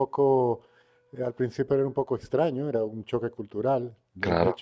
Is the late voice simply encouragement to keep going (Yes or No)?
Yes